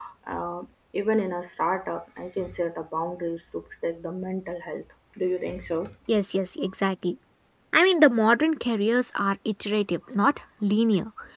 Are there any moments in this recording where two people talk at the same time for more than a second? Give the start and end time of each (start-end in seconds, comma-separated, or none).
none